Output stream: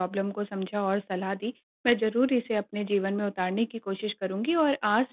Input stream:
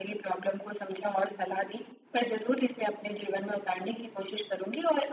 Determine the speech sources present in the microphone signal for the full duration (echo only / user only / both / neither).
echo only